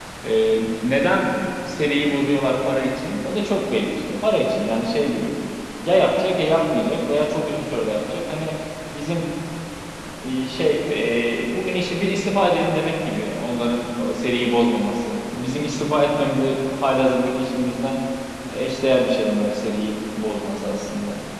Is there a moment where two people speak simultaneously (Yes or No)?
No